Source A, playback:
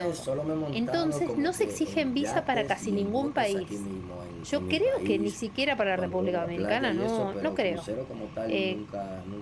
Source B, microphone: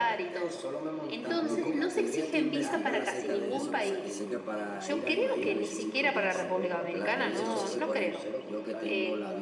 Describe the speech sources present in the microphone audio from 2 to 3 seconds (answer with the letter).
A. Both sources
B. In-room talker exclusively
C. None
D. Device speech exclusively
A